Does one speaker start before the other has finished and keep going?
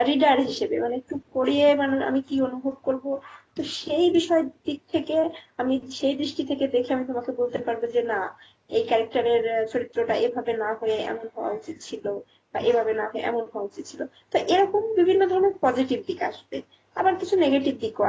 No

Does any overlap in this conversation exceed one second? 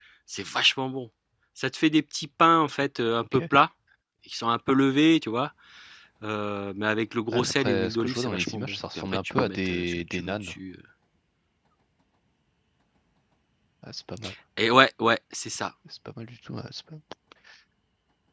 Yes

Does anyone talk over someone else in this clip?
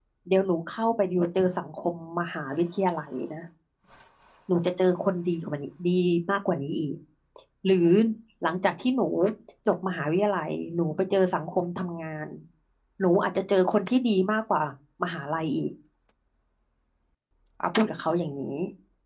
No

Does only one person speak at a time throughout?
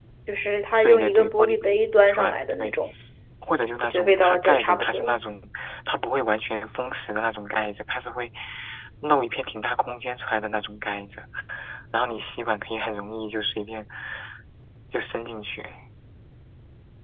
No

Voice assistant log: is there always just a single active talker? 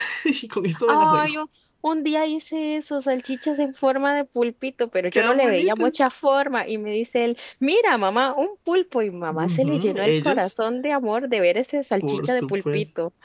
No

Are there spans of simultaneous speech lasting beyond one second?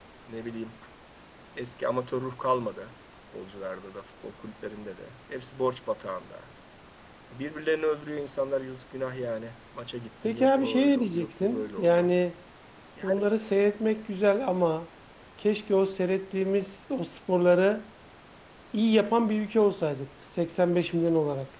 Yes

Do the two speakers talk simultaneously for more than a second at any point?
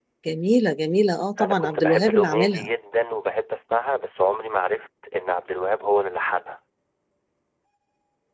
Yes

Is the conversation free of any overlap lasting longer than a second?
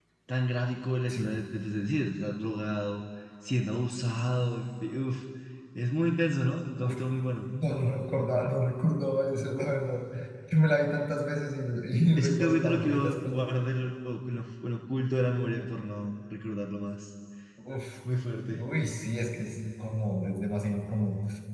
No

